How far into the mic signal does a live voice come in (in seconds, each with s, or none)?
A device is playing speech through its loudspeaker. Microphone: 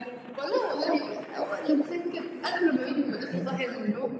3.1 s